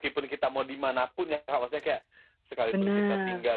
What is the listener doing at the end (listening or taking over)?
listening